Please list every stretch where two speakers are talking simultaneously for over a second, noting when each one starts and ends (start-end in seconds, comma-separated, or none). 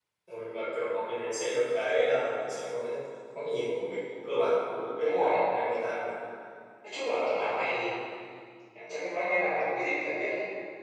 none